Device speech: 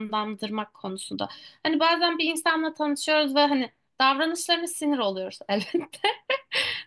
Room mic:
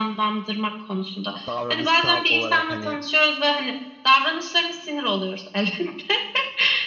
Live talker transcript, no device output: davranışsal olarak hani

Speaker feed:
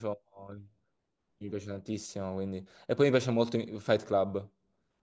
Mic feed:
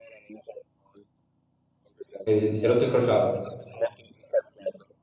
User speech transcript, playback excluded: Eh, Ti sei rotto il crociato?

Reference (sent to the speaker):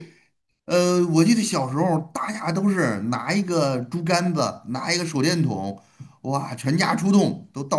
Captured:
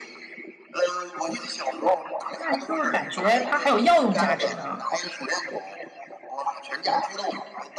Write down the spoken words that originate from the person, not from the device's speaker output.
那就是感觉它还有药用价值呢，

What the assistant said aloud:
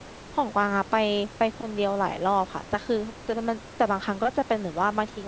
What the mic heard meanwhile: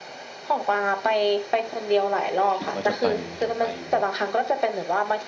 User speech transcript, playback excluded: คิดว่าจะไปอยากไปอยู่นะ

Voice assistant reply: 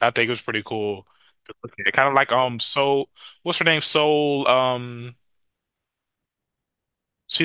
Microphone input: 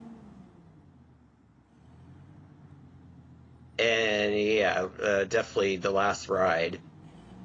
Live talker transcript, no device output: and yeah, uh, definitely the last ride

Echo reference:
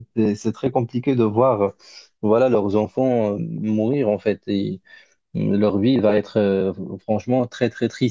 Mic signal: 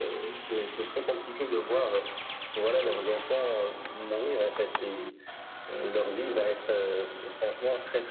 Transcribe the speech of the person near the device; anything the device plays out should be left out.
none

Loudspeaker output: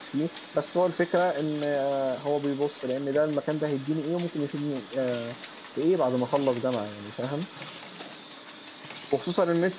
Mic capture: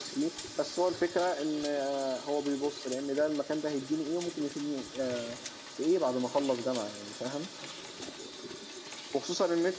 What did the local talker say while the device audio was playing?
none

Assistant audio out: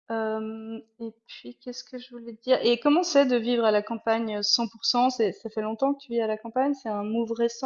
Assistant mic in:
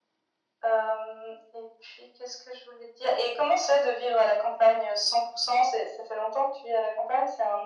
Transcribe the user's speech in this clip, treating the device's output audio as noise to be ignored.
none

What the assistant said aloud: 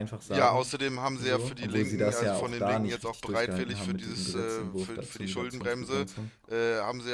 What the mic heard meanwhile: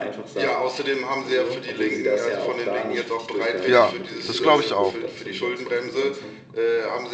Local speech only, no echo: Ja, das glaube ich auch.

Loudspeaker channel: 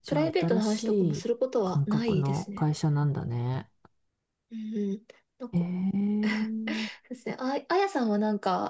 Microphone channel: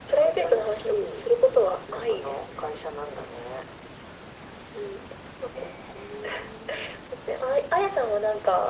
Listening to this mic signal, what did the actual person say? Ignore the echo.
none

